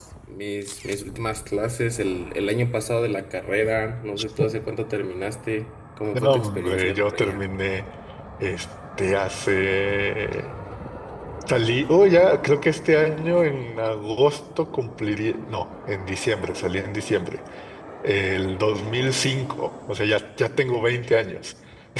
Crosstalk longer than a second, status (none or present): present